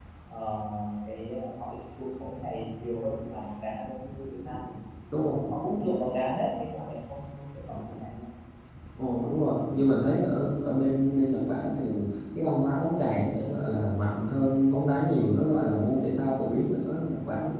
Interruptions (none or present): none